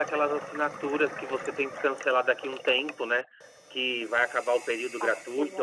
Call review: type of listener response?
listening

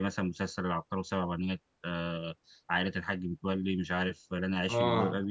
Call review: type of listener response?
taking over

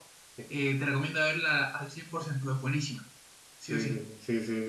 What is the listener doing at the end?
taking over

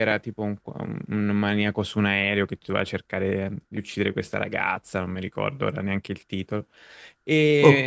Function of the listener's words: listening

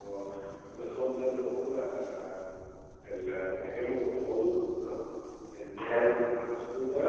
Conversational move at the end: listening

